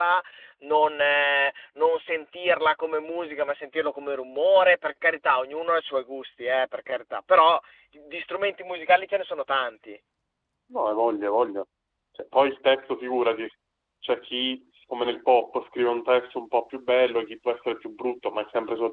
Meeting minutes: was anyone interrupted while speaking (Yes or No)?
No